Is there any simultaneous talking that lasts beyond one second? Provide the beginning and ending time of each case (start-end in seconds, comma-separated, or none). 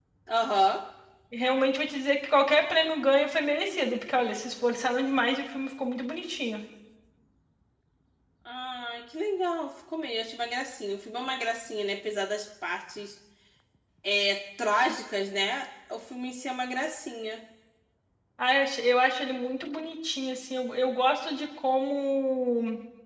none